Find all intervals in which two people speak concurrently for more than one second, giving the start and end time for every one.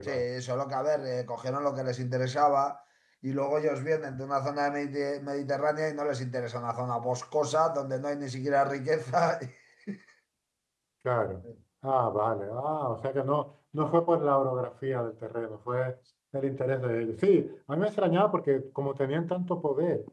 none

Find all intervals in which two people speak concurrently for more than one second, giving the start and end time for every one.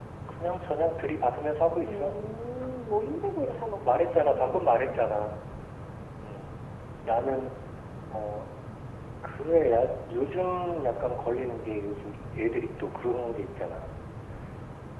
3.8-5.1

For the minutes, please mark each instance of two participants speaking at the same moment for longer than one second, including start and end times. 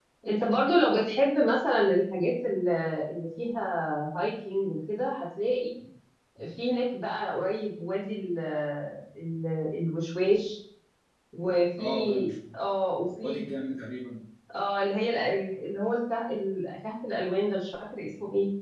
none

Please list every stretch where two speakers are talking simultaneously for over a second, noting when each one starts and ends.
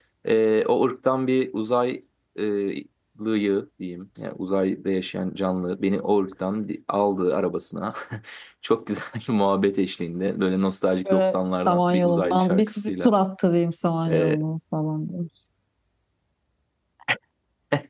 11.1-13.1

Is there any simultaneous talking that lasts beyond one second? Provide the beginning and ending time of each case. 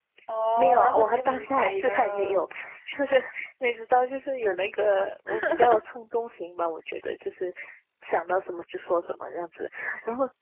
0.6-2.5

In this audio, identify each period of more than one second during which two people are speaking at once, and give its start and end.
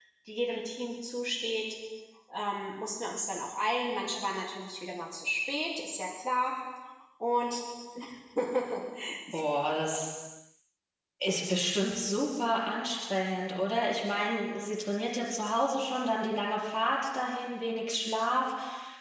none

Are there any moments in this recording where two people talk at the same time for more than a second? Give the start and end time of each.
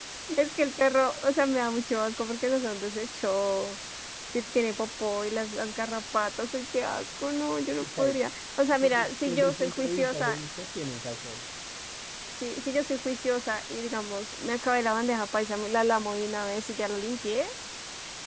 8.8-10.4

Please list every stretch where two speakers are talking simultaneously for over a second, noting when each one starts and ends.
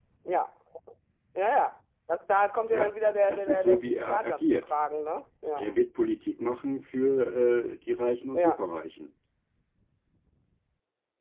2.7-4.7

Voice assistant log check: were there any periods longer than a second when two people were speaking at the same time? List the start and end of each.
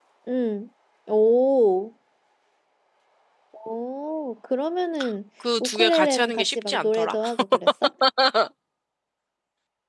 5.6-7.2

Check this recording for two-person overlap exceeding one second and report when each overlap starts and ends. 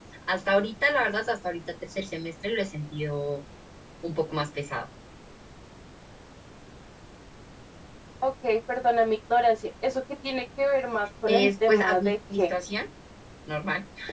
11.3-12.5

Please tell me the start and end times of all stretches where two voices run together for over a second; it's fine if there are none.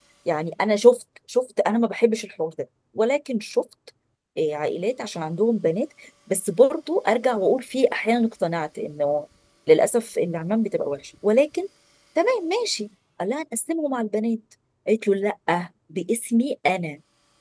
none

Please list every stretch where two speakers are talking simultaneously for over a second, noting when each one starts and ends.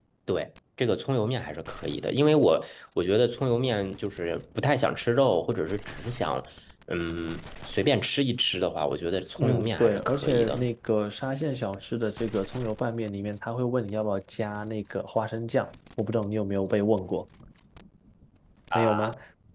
9.4-10.7

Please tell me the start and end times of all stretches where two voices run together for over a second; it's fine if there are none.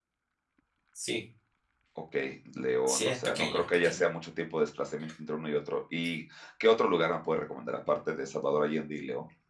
2.8-4.0

